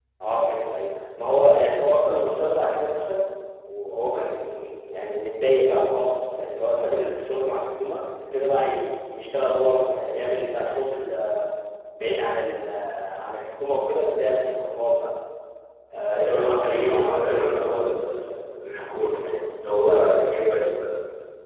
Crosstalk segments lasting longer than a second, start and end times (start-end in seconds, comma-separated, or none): 16.1-17.5